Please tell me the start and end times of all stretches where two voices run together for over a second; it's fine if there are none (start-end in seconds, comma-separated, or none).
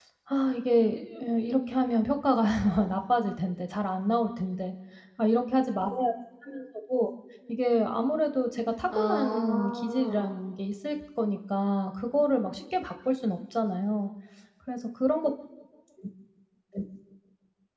8.9-10.3